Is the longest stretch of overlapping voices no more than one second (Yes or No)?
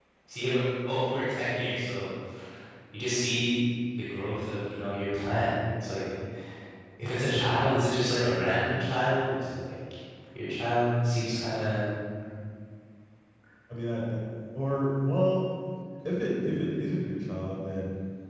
Yes